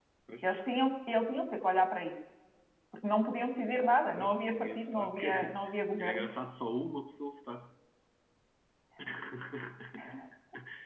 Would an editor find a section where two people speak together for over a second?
Yes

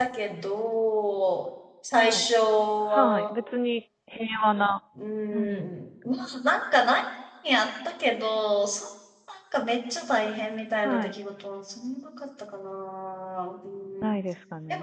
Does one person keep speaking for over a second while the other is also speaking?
No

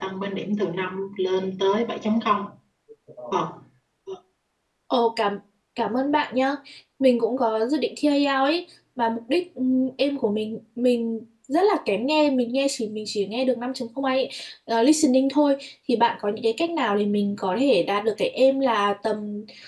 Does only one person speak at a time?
Yes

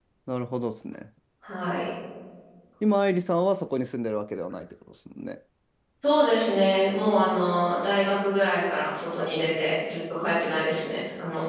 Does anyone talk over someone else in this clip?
No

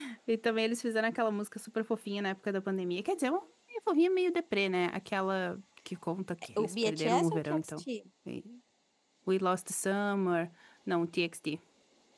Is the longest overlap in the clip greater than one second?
Yes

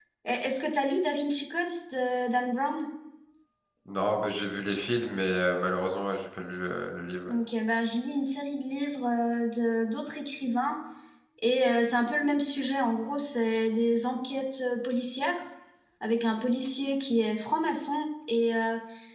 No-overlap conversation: Yes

